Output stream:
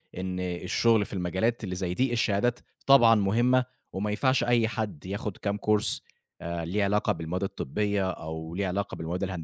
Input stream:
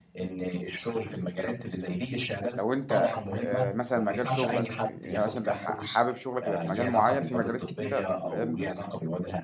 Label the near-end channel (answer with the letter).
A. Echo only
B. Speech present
B